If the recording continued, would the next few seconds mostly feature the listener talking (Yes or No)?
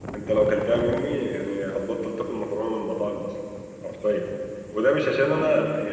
No